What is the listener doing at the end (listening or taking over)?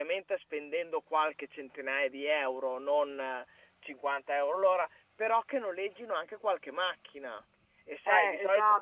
taking over